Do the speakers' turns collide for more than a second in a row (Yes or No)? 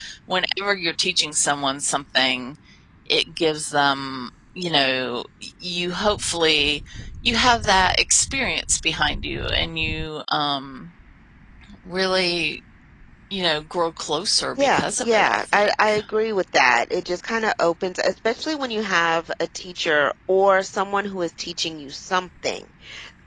Yes